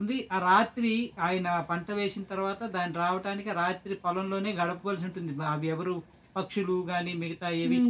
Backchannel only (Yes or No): No